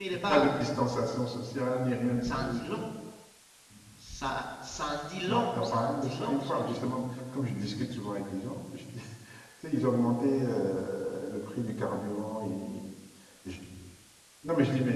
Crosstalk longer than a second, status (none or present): present